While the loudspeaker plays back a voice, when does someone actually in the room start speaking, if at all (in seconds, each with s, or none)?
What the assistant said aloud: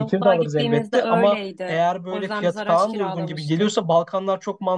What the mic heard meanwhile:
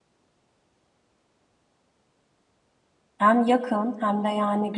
3.2 s